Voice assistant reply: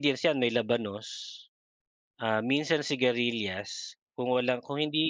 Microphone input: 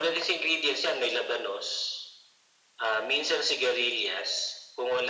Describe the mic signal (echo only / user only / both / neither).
echo only